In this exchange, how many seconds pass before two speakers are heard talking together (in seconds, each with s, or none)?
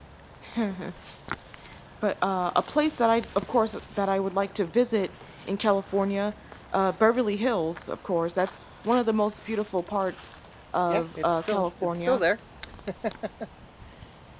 10.9 s